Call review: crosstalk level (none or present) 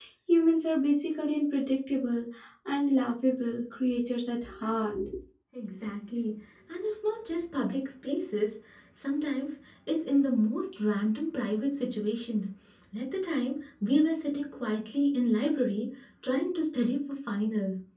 none